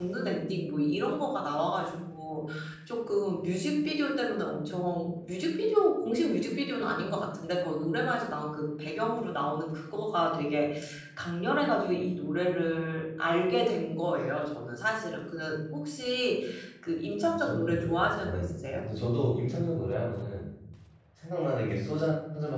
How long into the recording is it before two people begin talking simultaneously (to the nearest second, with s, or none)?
17 s